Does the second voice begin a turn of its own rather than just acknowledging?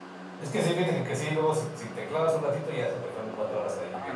Yes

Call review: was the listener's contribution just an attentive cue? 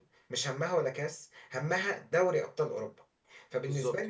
Yes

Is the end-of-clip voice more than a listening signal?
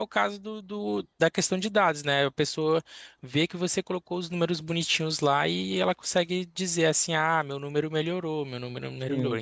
Yes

